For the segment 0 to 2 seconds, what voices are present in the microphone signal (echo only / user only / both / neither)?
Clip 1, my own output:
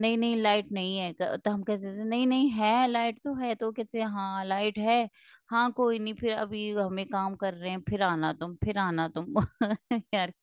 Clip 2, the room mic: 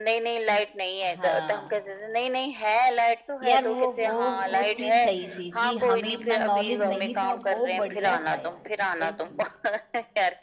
both